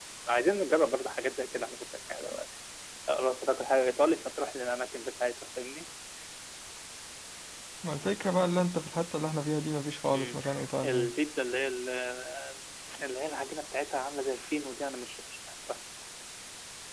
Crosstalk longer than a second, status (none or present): none